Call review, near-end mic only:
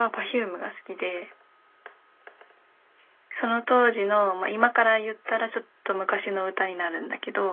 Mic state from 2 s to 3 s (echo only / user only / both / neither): neither